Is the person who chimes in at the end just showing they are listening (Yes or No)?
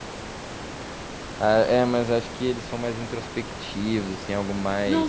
No